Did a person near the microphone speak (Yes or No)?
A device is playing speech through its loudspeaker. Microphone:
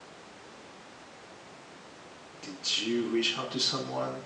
Yes